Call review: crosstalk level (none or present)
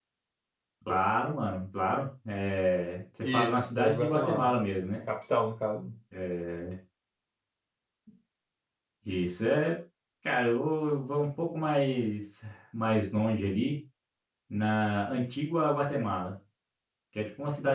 present